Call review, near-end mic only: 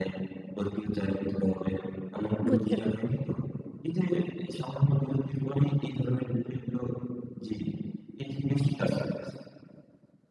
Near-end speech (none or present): present